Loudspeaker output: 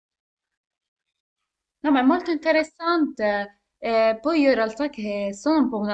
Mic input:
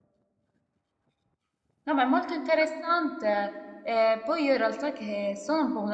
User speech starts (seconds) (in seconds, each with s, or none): none